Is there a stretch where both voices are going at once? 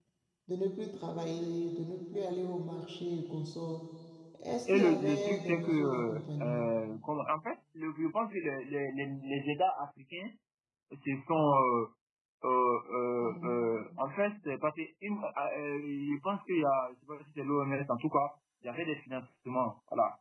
Yes, from 4.7 s

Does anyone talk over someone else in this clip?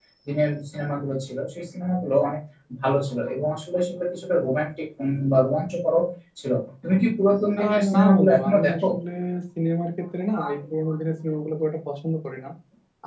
Yes, from 7.6 s

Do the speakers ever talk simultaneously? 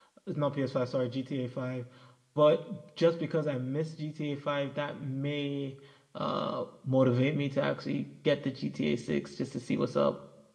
No

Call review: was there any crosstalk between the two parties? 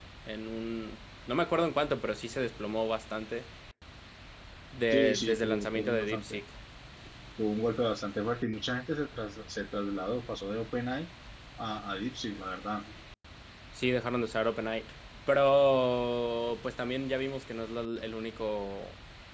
Yes, from 4.9 s

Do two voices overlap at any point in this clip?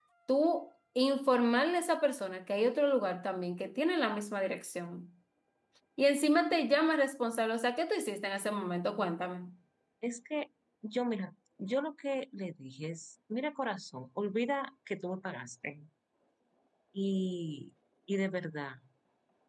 No

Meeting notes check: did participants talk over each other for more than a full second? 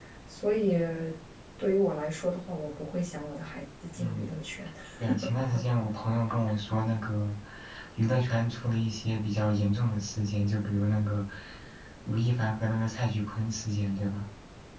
No

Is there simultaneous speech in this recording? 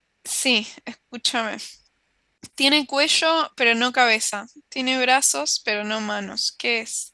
No

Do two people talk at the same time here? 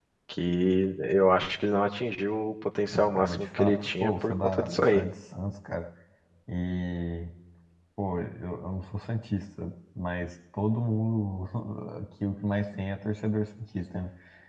Yes, from 2.9 s

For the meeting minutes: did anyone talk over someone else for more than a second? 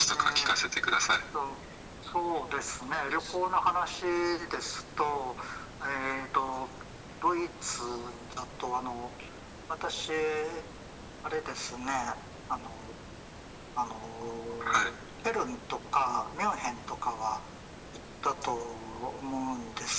No

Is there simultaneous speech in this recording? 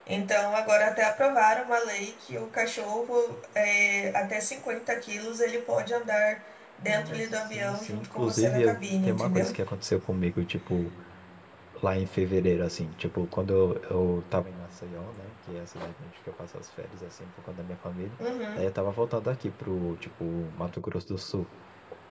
Yes, from 6.8 s

